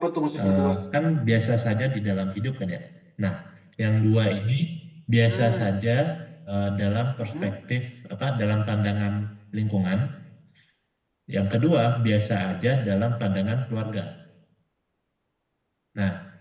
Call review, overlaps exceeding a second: none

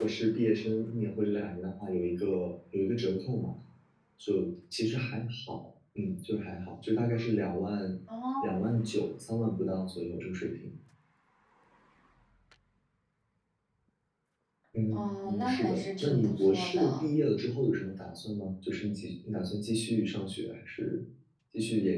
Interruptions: present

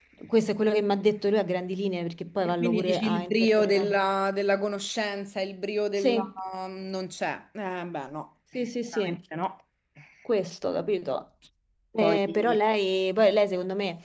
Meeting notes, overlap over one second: present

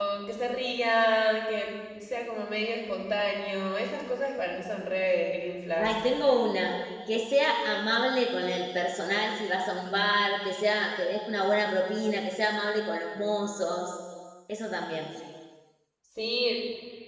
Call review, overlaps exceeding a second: none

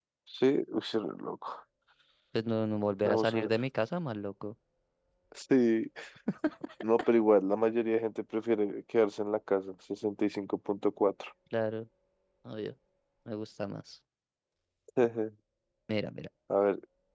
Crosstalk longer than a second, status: none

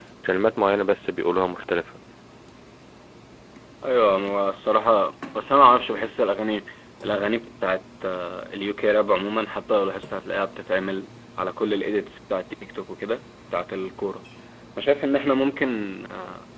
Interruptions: none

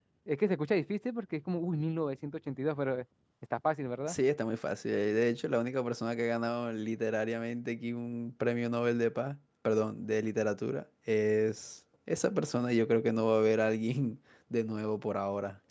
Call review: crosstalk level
none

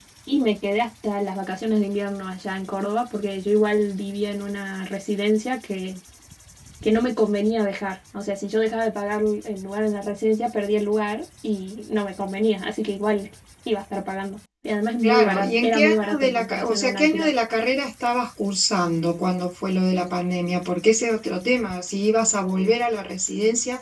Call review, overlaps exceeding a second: present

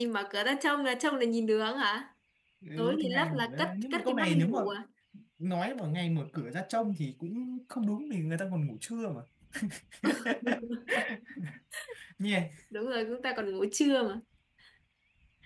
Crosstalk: present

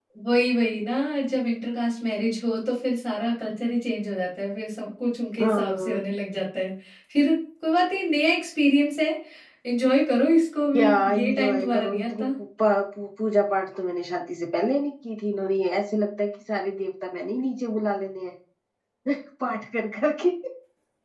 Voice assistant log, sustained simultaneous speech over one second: present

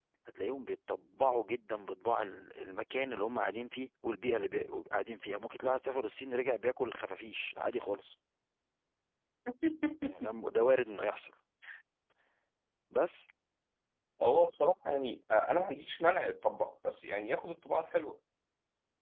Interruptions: none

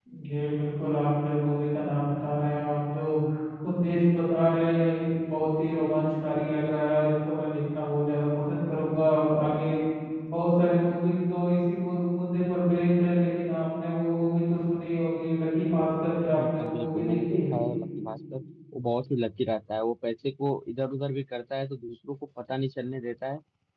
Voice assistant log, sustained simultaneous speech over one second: present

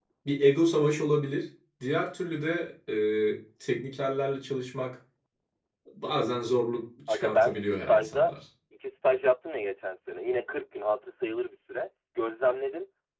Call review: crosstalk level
present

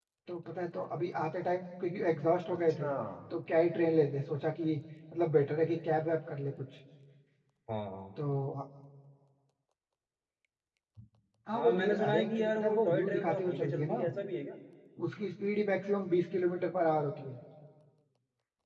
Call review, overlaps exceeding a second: present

